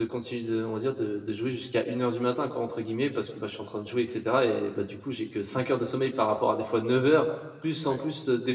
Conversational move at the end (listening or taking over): listening